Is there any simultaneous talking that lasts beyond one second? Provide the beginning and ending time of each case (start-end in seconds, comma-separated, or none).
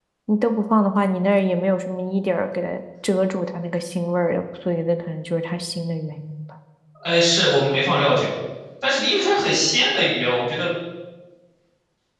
none